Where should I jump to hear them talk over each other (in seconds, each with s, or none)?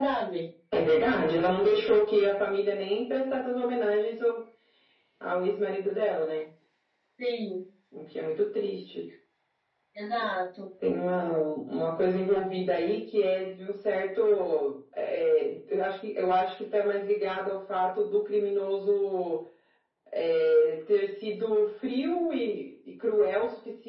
none